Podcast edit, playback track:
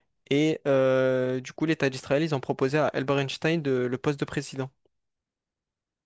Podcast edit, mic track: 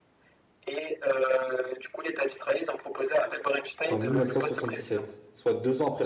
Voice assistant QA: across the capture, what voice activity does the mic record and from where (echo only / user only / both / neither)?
both